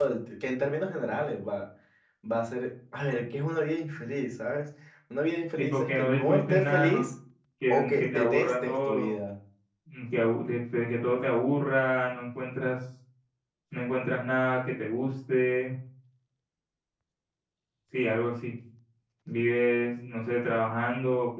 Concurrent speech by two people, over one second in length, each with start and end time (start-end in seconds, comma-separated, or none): 5.6-7.0, 7.7-9.1